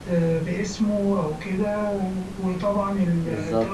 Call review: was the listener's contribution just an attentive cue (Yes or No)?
Yes